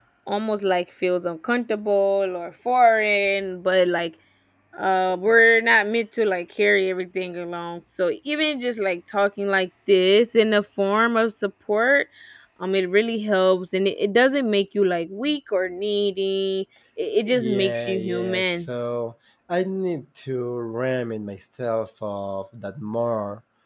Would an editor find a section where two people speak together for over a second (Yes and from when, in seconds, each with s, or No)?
Yes, from 17.2 s